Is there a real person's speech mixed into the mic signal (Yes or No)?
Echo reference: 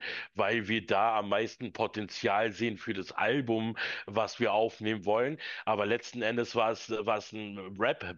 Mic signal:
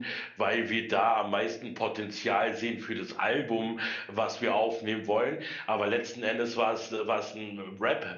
No